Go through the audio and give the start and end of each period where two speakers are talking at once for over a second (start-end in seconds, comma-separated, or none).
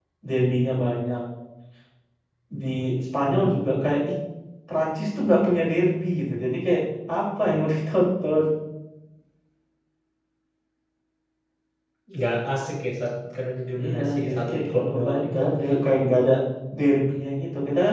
13.8-15.4